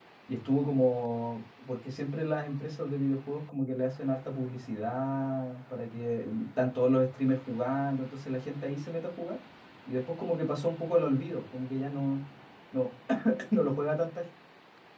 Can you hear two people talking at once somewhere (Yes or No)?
No